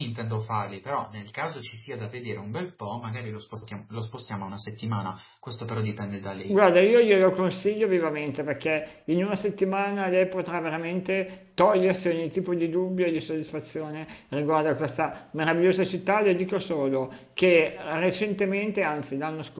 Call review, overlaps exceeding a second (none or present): none